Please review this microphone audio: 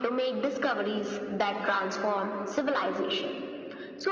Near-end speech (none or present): none